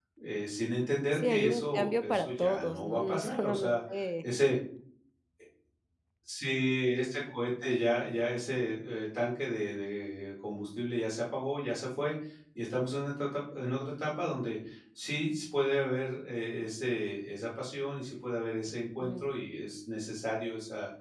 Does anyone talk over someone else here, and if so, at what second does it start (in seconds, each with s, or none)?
1.1 s